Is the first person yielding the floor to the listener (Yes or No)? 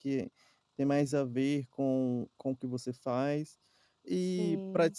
No